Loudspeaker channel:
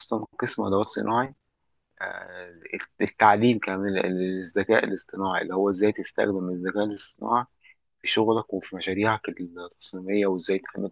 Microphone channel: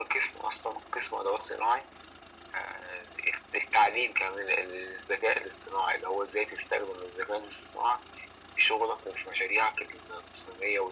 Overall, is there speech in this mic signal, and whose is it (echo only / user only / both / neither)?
echo only